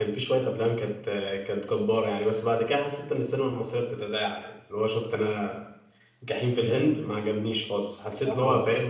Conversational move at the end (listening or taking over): listening